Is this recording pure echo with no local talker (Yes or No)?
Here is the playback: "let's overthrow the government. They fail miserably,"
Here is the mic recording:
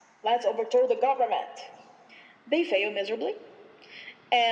Yes